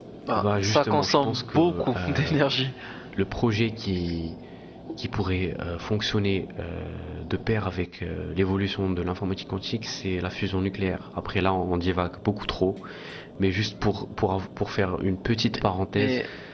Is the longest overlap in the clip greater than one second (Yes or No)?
Yes